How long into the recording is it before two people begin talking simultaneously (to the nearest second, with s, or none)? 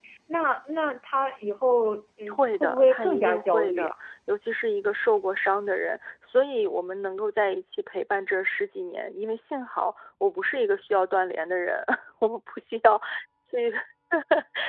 2 s